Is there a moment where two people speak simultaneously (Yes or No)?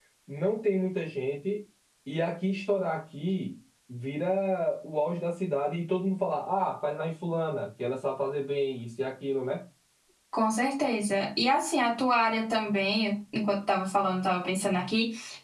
No